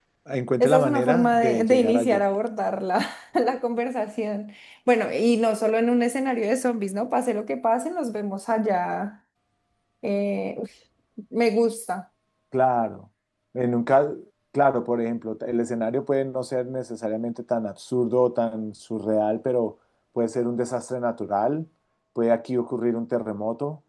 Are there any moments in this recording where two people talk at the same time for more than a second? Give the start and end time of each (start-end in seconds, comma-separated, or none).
0.6-2.2